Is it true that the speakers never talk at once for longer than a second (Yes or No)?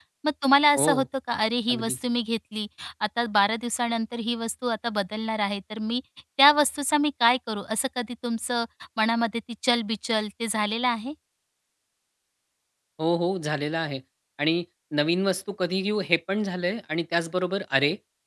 Yes